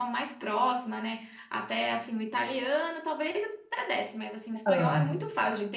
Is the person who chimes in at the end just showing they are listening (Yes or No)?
Yes